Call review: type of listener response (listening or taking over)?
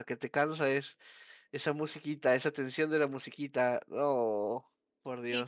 taking over